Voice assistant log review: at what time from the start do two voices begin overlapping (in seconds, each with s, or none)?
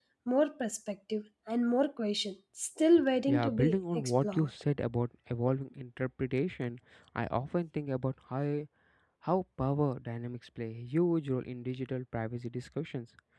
3.3 s